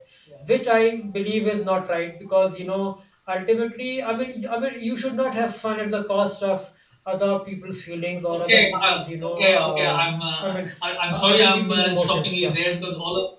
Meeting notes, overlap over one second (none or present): present